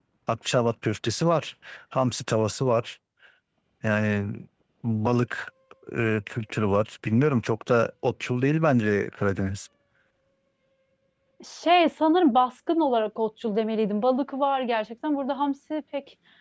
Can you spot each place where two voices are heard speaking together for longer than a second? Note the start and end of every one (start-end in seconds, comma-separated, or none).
none